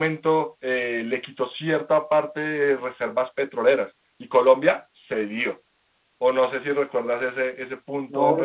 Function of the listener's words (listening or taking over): taking over